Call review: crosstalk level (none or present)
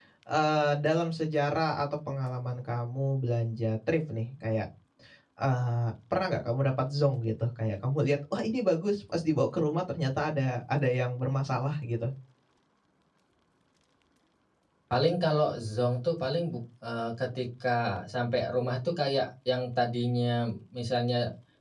none